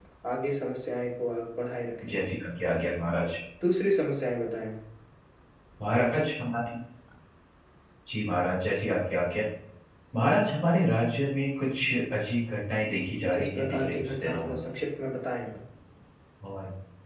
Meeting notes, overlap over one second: present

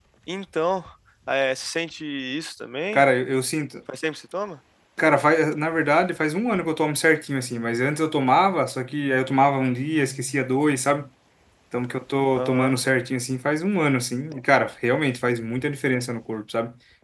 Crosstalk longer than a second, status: none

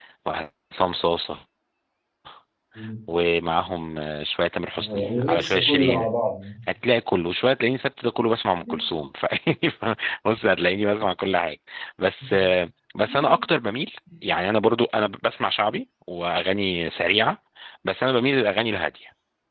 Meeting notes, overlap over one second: present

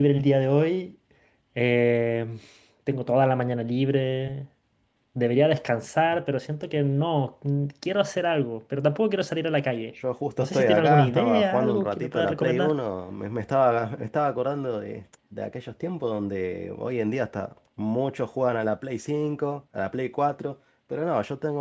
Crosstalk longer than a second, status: present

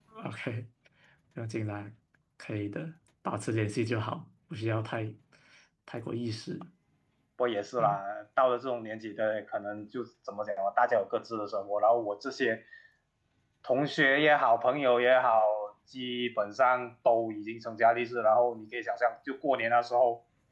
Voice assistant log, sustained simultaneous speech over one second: none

